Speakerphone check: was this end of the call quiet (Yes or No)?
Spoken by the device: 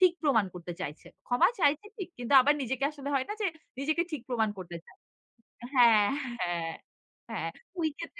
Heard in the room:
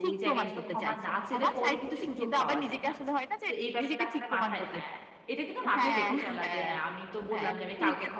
No